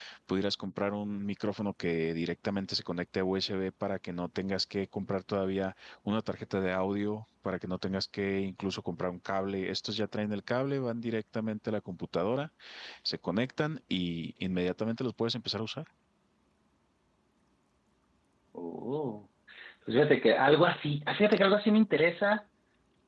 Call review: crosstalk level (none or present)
none